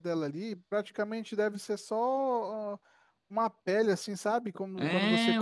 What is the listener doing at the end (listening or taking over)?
taking over